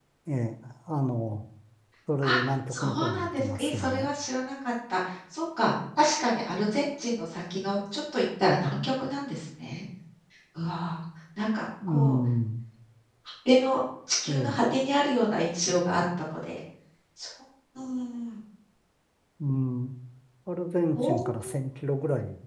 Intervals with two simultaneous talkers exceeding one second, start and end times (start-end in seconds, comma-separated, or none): 2.7-4.1